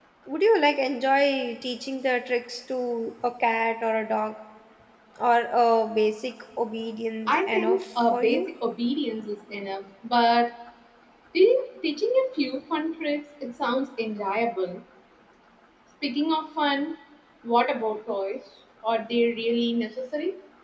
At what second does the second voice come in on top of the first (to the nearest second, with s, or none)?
7 s